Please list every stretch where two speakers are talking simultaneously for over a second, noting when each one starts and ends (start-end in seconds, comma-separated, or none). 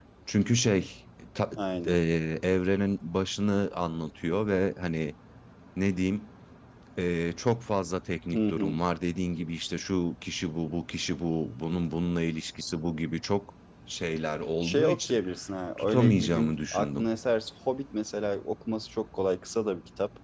15.8-17.1